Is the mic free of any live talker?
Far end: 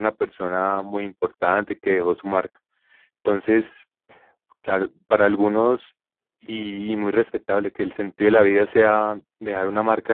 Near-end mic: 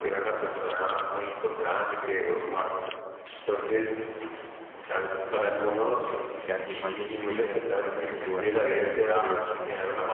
No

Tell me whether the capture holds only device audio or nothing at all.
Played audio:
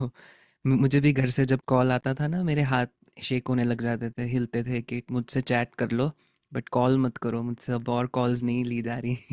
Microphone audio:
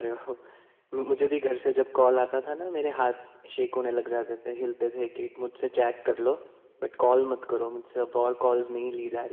Yes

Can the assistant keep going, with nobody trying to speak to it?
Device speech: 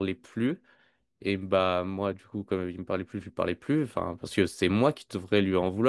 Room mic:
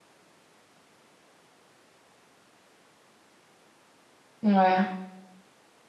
No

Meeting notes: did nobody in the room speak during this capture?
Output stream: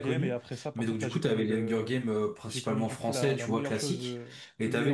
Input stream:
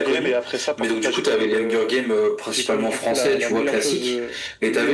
Yes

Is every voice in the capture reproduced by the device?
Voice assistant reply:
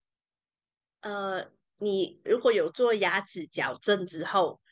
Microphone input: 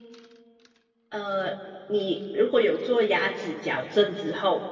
Yes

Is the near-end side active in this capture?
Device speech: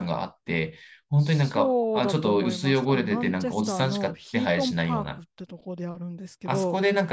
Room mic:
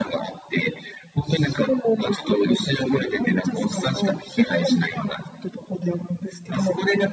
No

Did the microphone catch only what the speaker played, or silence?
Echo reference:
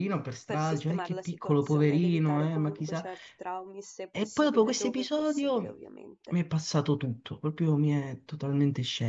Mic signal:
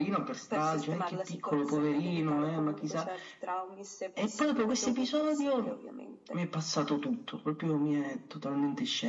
Yes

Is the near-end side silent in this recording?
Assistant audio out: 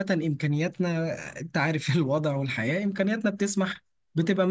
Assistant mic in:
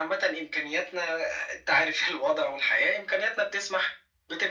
Yes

